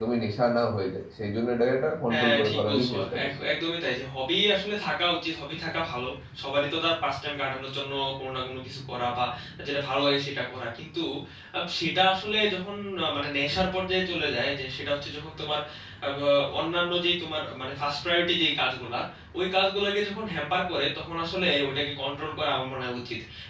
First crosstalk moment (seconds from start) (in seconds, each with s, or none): 2.1 s